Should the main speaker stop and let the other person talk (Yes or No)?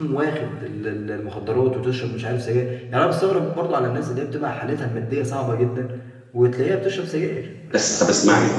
Yes